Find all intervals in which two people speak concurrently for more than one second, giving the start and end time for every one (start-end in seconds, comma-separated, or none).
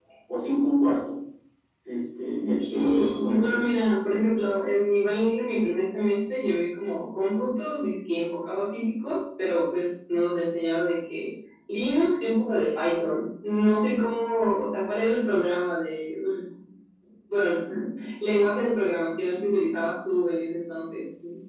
2.4-3.7